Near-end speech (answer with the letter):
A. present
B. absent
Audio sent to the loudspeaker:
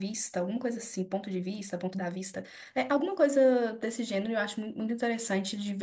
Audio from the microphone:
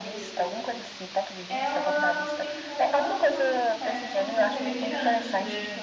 A